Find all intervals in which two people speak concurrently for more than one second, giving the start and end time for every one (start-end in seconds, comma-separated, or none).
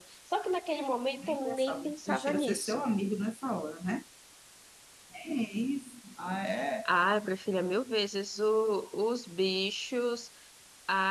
1.2-2.9